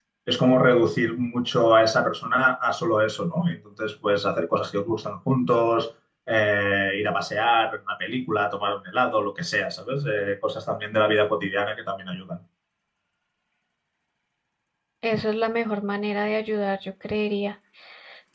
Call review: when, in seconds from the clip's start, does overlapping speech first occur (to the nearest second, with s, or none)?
none